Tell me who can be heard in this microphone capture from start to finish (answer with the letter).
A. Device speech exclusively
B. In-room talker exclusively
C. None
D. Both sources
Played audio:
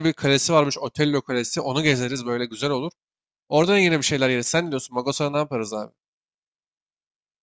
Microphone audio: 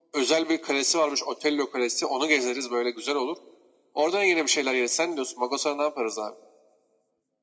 A